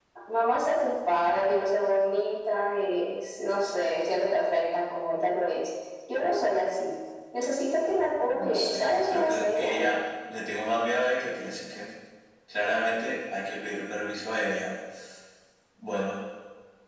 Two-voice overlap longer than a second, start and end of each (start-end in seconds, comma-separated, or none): 8.3-9.8